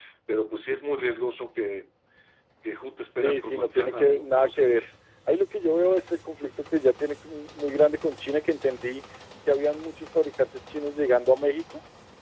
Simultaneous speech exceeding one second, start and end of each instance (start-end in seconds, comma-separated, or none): 3.2-4.8